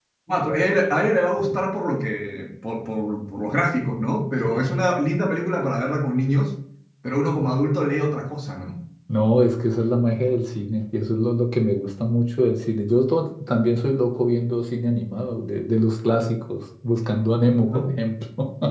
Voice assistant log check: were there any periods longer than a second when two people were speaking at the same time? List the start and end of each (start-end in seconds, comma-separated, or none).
none